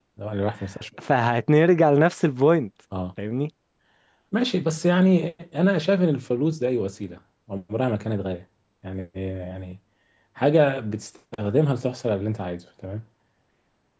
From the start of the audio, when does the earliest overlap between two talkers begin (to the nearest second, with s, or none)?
none